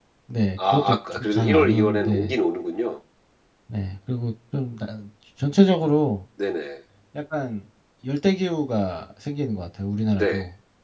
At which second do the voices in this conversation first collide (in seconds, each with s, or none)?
0.7 s